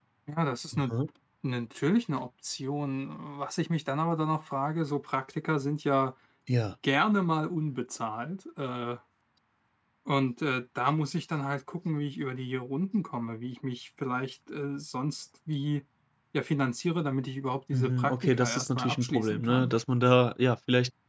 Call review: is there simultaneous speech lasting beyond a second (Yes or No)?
Yes